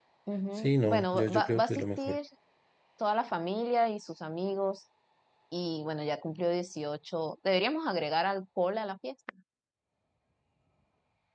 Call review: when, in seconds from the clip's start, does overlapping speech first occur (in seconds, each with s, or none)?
0.6 s